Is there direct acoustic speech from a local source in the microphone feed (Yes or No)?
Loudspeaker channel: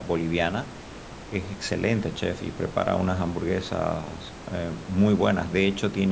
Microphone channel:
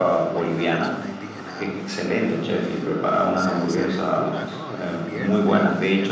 Yes